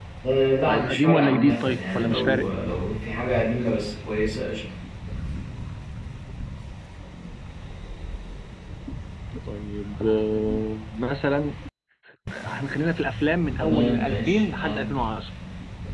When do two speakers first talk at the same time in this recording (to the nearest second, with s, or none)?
1 s